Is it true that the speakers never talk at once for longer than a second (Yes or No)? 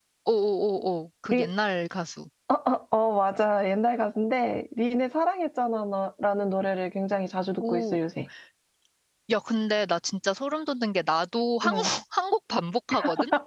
Yes